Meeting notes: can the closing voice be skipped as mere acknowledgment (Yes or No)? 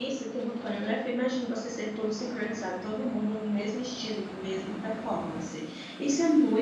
Yes